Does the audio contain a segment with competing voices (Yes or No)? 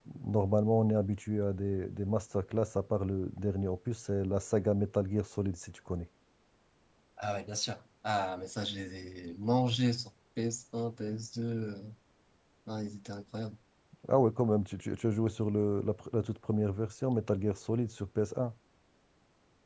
No